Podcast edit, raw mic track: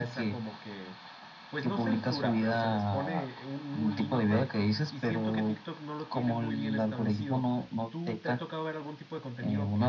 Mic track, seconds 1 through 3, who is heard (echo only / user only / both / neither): echo only